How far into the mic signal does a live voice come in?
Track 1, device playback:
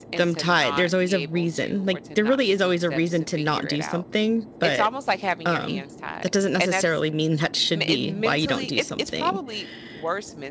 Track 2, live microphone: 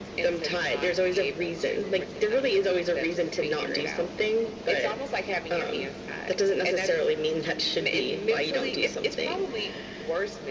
none

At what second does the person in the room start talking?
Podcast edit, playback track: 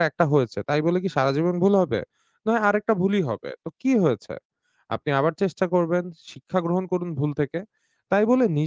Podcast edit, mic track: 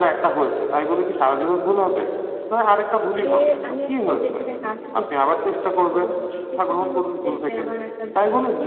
3.2 s

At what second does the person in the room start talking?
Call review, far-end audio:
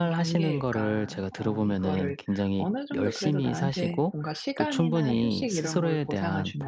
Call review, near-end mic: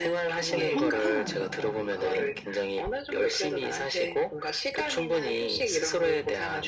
0.4 s

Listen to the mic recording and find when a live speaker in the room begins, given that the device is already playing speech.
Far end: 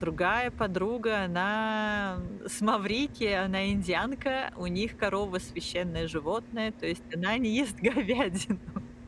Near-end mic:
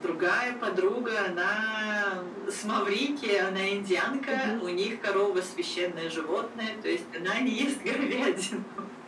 4.3 s

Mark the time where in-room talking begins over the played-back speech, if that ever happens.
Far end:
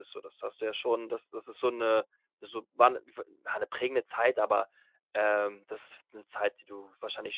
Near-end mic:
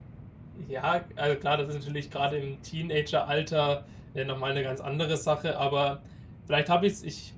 0.5 s

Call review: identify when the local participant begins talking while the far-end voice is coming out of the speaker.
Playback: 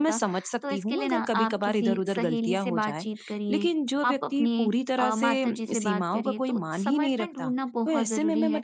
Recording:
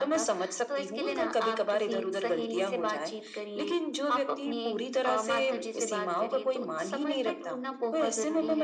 none

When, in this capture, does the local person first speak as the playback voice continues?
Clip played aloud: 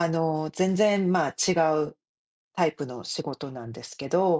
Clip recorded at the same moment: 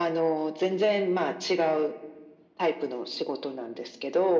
none

